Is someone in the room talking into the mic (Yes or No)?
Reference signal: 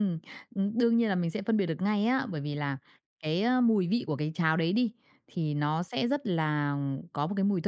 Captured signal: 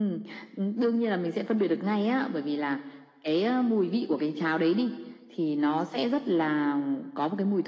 No